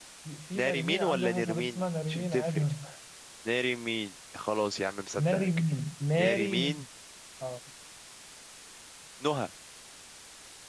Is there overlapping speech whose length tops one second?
Yes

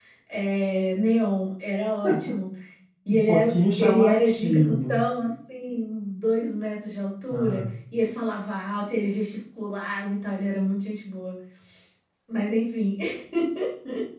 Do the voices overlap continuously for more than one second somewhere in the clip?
Yes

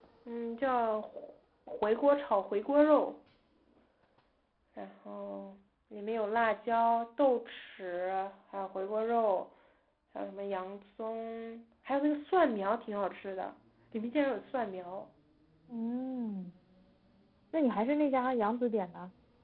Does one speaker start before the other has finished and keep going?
No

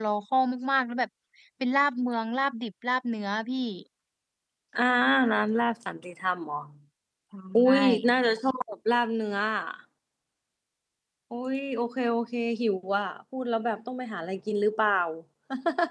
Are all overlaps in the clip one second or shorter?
Yes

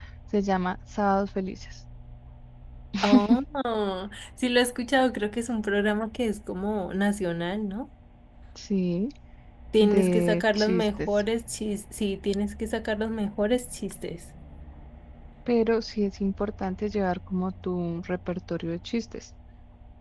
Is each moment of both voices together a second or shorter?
No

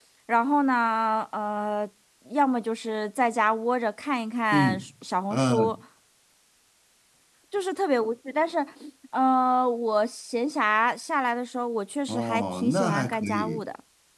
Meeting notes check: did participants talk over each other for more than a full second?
Yes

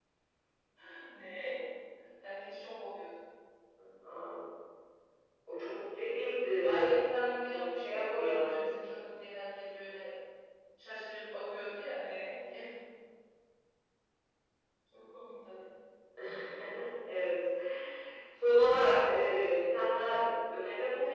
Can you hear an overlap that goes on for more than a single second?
Yes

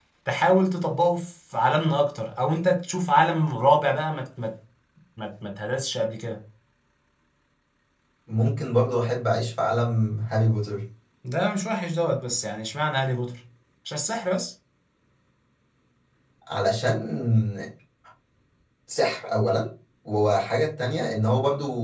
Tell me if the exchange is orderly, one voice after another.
Yes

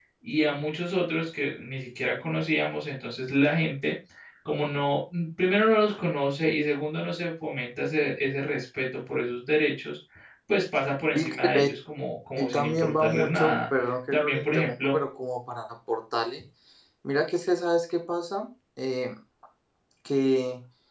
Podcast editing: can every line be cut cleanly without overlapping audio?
No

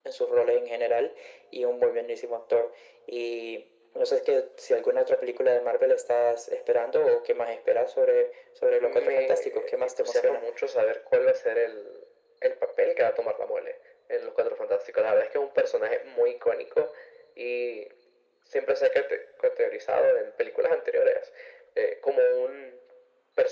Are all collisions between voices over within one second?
No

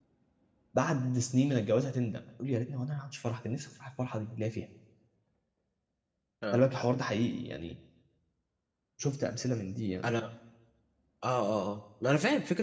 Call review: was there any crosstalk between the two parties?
No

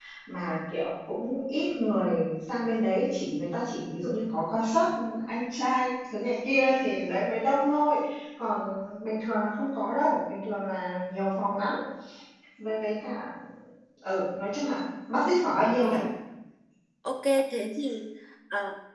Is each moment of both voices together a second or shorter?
Yes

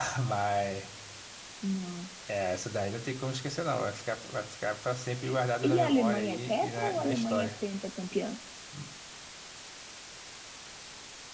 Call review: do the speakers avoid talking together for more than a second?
No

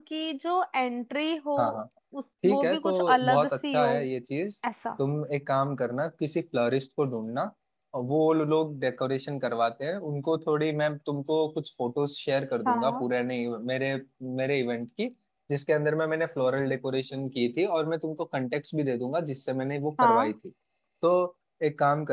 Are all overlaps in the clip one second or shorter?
No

